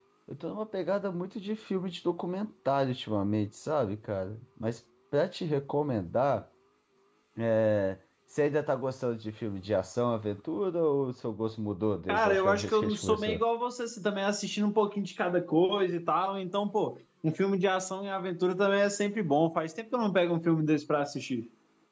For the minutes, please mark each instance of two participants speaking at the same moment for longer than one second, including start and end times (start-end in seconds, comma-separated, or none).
12.1-13.4